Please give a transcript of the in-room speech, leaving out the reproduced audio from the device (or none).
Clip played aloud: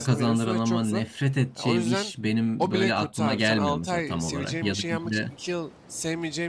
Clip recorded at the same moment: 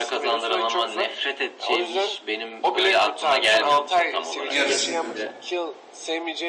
Yarısı gidiyor.